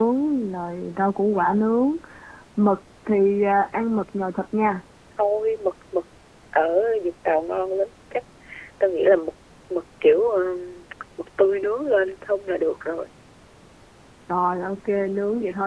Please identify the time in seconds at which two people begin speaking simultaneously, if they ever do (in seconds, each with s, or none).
none